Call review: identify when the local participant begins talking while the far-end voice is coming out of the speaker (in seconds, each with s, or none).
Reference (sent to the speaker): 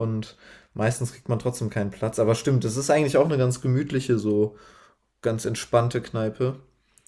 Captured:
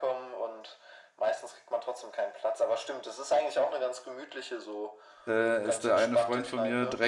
5.2 s